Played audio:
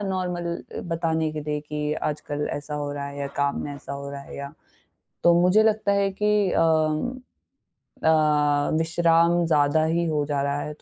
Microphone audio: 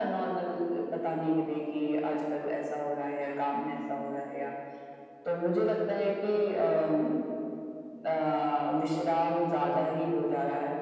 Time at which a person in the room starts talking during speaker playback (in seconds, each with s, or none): none